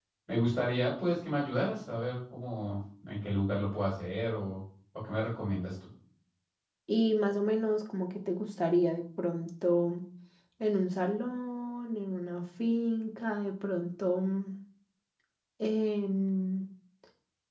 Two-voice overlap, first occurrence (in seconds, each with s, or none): none